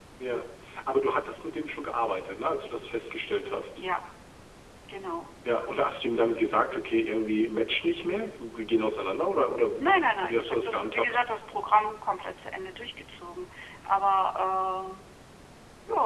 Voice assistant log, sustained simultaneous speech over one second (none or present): present